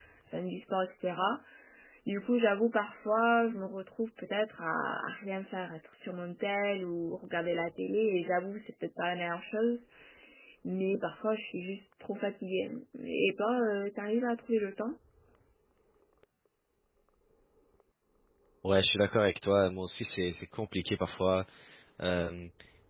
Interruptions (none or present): none